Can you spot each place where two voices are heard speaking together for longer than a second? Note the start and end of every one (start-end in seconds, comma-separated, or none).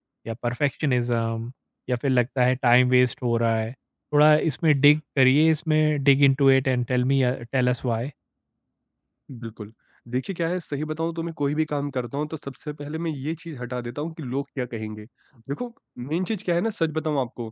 none